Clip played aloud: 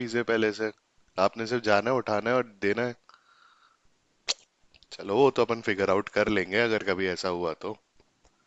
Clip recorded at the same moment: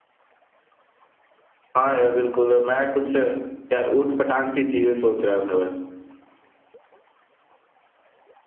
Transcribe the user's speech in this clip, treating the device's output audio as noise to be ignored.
हाँ यार बिल्कुल मैं कुछ यार ऊट पटांग सी चीजें सोच रहा था वैसे

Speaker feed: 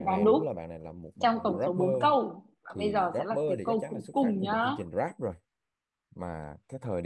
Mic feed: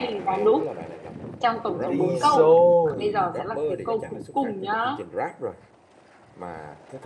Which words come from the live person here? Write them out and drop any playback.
Viso

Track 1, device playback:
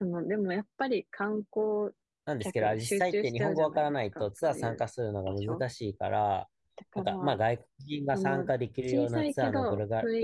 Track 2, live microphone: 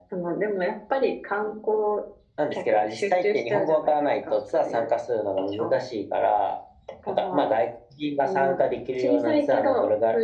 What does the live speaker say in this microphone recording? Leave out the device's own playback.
none

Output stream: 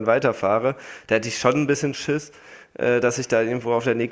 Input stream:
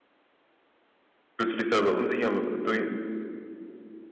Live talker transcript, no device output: Fühlst du dich da aber unsicher durch,

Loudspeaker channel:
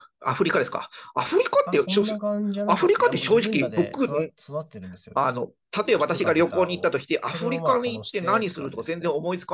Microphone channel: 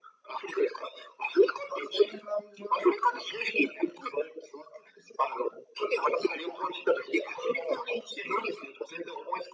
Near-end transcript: none

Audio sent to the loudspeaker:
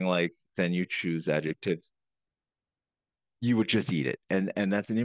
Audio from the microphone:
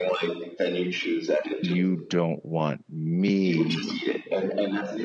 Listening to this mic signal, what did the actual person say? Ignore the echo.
you don't want me

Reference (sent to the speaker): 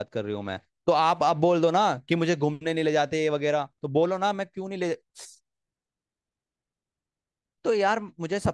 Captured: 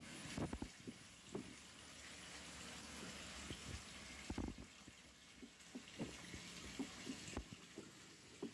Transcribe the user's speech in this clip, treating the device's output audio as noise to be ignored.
none

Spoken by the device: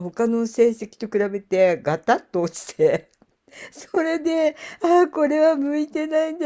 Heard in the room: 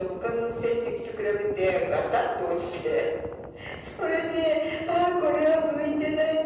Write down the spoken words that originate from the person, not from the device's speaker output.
none

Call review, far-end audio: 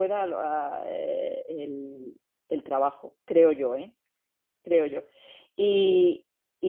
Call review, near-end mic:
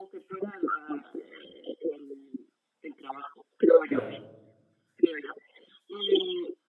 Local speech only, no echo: claro.

